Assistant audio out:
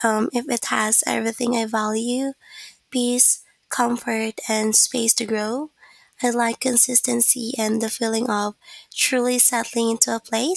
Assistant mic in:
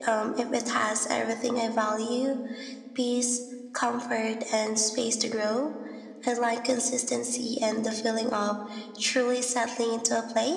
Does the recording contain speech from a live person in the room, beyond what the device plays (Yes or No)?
No